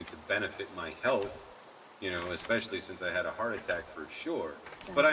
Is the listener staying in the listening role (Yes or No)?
Yes